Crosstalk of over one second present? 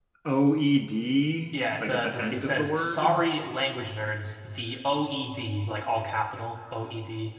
Yes, from 1.5 s

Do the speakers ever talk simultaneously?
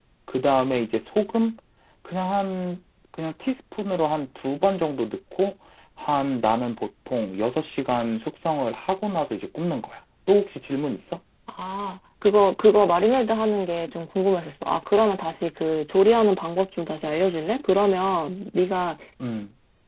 No

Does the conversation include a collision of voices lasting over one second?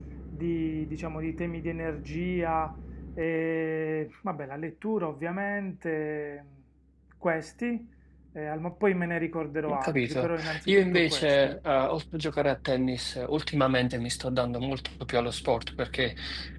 Yes, from 9.7 s

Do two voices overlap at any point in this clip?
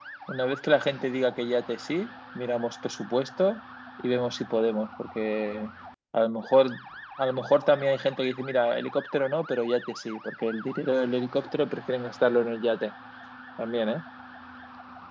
No

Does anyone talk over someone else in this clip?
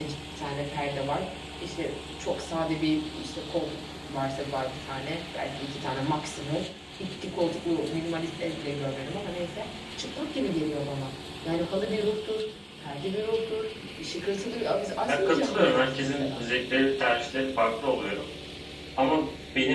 Yes, from 15.1 s

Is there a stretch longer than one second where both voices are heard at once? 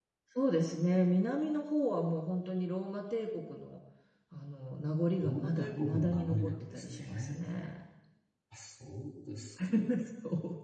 Yes, from 5.2 s

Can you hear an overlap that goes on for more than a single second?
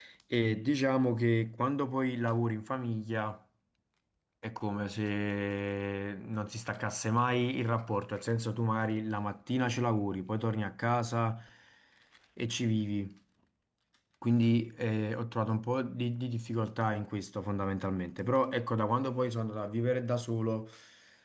No

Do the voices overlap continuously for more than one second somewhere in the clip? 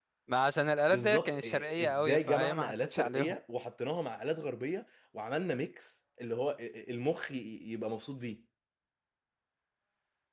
Yes, from 0.9 s

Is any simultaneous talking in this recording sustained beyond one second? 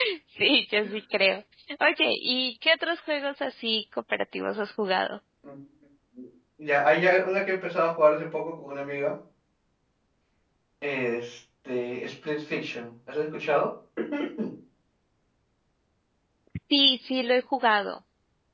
No

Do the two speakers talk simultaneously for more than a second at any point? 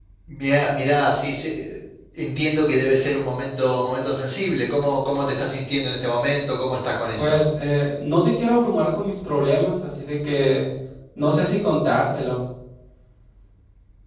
No

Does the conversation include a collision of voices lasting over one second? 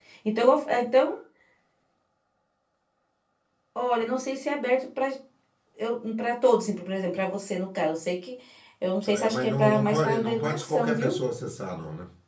Yes, from 9.1 s

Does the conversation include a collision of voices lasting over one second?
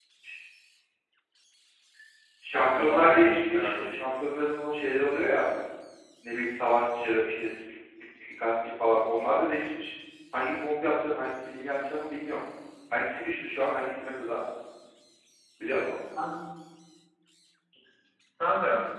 Yes, from 2.5 s

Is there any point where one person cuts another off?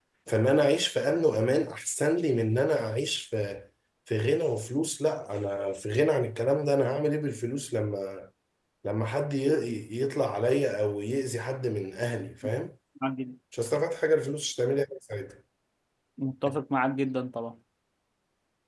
No

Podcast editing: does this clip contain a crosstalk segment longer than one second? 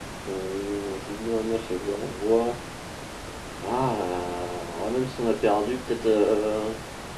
No

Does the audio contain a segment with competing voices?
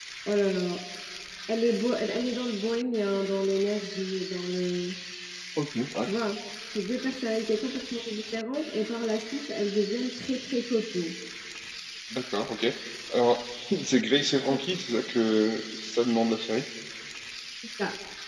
No

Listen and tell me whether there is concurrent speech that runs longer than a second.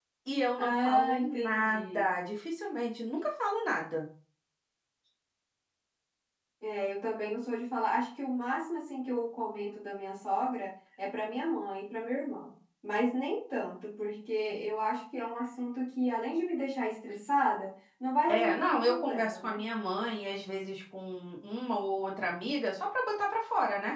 Yes, from 0.6 s

